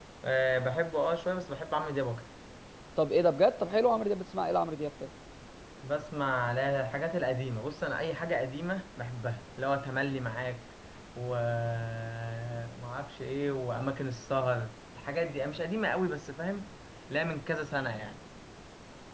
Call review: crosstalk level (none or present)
none